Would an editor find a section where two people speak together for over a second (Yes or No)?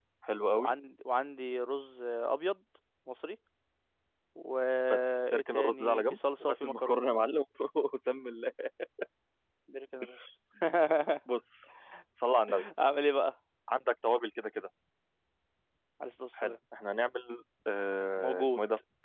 Yes